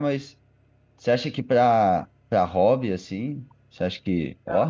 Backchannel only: No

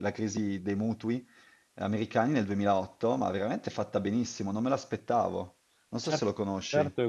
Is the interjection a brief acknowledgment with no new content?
No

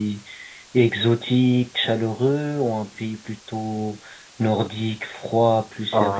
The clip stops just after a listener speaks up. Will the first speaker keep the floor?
No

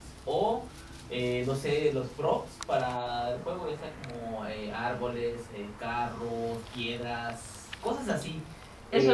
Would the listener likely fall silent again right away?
No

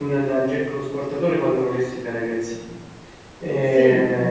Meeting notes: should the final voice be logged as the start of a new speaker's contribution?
No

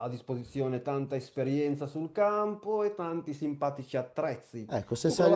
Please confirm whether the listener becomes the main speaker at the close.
Yes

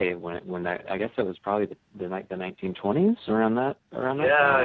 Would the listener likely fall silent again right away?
No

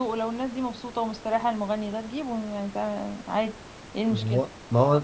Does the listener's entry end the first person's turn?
Yes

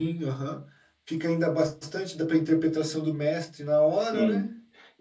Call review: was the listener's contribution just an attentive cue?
No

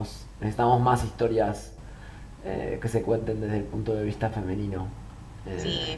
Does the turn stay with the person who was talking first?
No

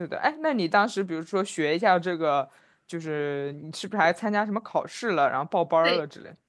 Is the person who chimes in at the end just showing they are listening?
No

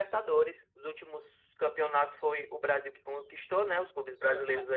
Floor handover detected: No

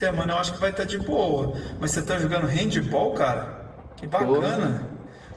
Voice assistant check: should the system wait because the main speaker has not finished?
Yes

